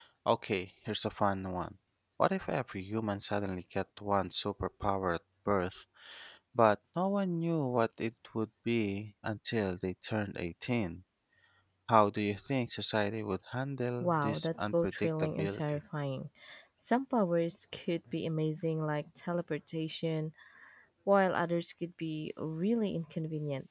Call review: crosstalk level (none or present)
present